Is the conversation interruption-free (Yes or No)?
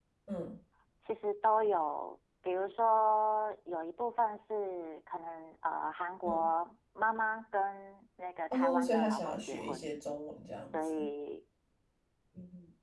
No